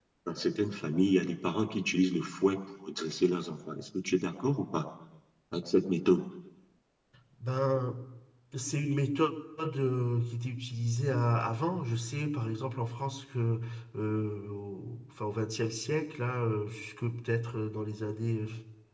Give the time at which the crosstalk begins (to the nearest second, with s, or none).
none